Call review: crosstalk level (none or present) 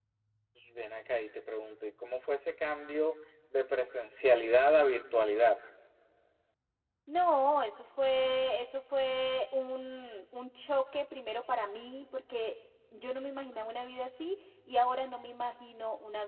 none